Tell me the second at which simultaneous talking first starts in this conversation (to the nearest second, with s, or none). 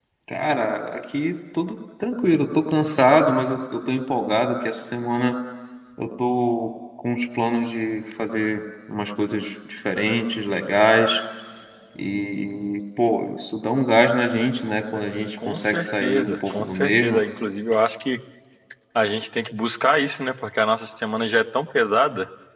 15 s